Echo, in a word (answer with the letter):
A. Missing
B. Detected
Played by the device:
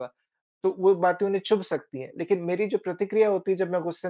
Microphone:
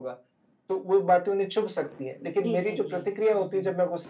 B